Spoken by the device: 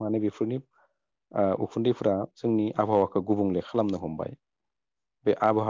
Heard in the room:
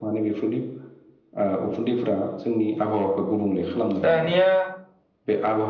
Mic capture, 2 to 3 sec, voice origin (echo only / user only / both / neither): echo only